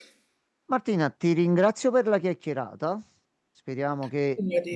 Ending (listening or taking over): listening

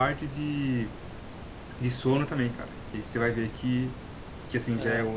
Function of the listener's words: listening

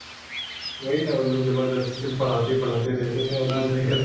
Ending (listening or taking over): taking over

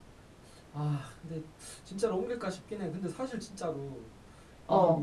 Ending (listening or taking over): listening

